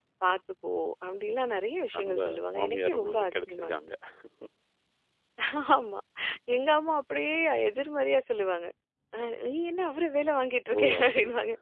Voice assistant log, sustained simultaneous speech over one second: present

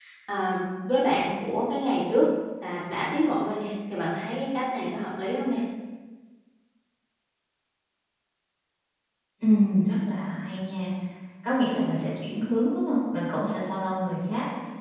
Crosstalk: none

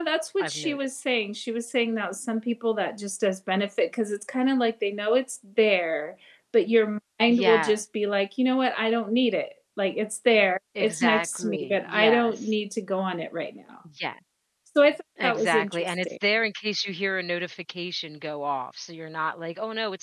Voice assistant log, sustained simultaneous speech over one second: present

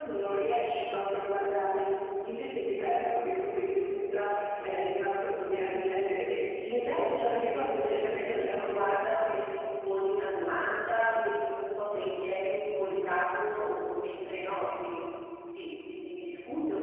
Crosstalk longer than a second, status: present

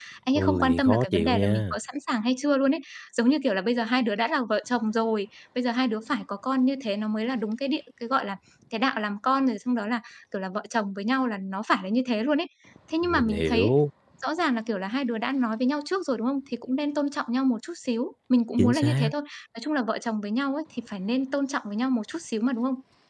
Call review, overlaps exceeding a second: present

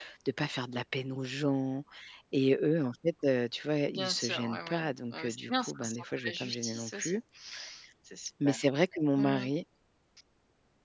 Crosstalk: present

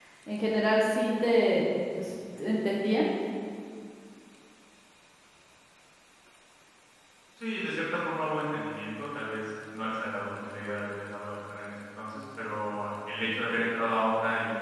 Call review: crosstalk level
none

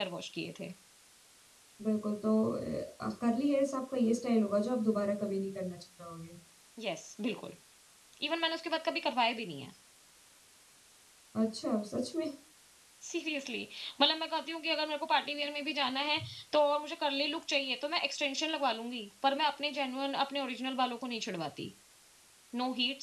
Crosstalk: none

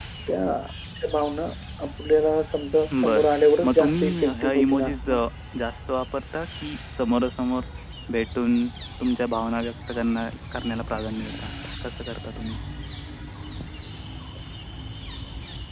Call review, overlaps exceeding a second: present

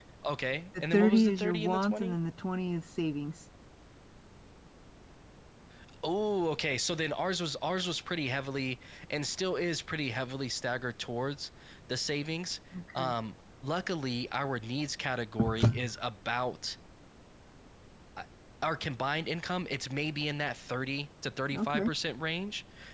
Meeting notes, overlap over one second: present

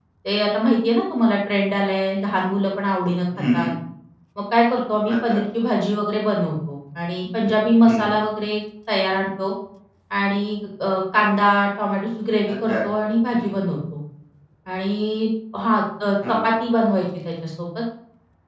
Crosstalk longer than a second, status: none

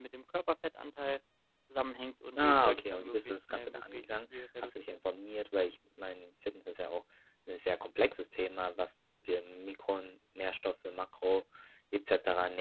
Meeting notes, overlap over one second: present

